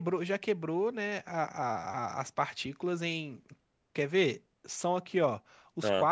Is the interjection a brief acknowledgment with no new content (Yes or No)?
Yes